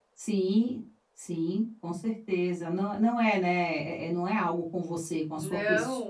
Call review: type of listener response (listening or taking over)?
taking over